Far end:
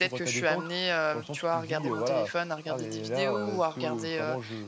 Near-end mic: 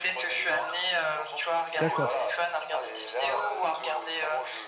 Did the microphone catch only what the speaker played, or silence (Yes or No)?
No